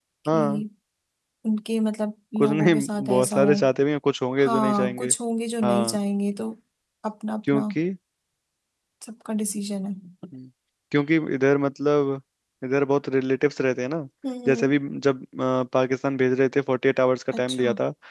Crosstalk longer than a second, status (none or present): present